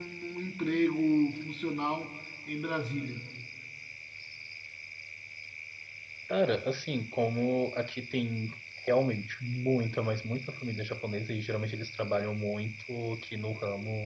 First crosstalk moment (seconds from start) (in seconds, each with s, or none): none